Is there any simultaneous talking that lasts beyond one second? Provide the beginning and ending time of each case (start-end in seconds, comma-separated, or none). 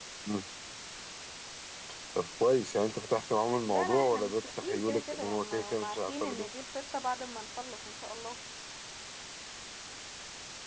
3.6-6.5